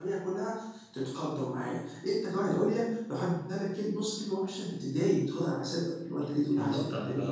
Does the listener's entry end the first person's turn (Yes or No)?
Yes